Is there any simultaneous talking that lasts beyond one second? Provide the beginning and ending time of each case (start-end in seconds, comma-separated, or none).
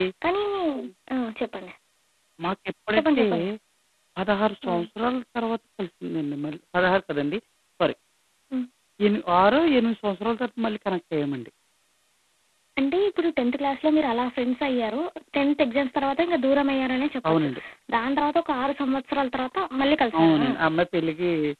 none